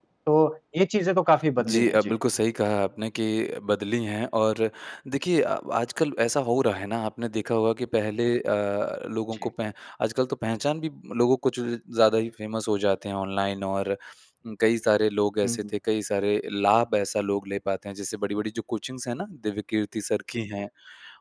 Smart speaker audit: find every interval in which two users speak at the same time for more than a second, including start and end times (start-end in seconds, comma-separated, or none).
none